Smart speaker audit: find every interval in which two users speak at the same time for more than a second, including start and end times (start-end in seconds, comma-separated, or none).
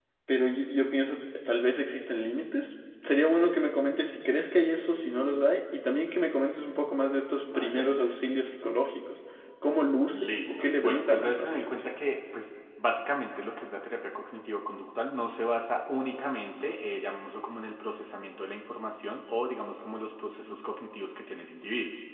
10.1-11.7